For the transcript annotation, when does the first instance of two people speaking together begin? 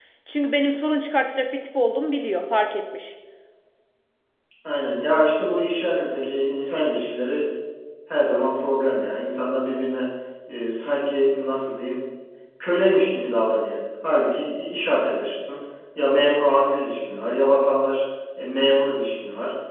none

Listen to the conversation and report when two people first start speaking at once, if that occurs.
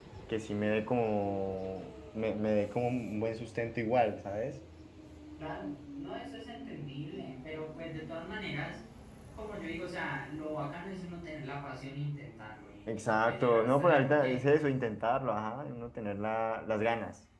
12.9 s

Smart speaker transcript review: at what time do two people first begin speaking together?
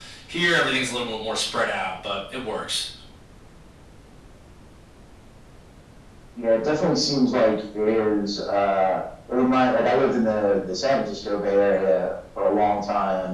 none

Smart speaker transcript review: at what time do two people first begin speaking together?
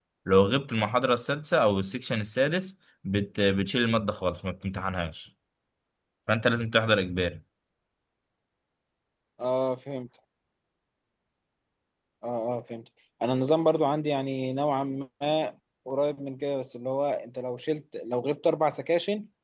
none

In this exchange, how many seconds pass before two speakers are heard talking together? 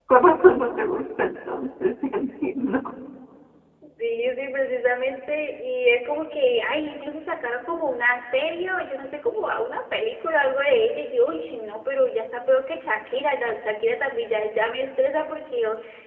none

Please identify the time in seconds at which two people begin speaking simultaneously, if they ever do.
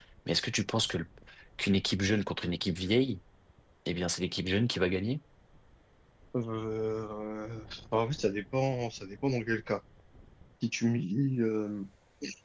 none

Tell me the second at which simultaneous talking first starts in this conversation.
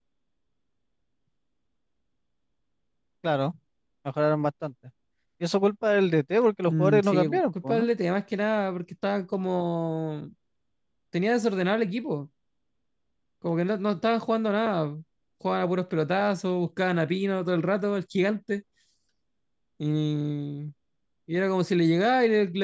6.7 s

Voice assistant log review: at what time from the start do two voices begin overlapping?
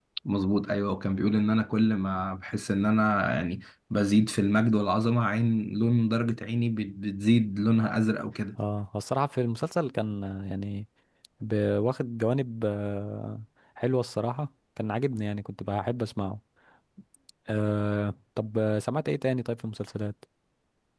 none

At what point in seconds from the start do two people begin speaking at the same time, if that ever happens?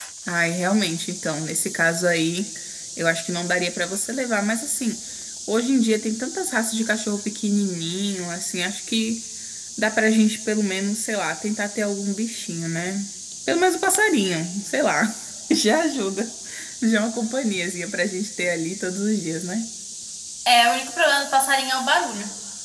none

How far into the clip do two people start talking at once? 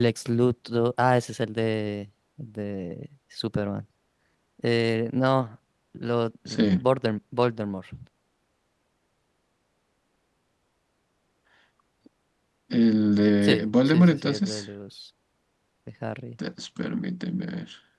13.4 s

